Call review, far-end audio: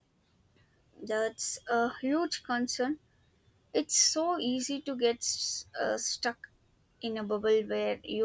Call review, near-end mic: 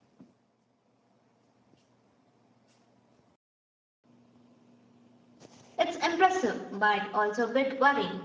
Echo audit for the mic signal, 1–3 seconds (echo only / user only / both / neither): neither